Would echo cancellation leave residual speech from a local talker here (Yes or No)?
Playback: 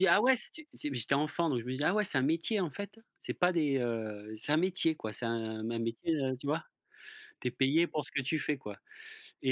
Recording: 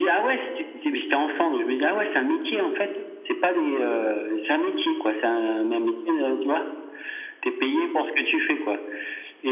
No